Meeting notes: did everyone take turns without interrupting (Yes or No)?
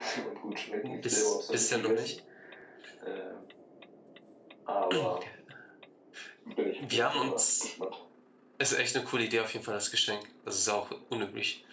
No